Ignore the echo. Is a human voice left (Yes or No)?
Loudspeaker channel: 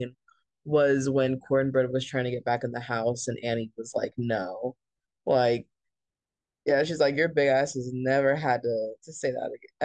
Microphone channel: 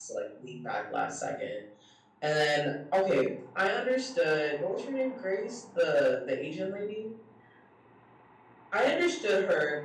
Yes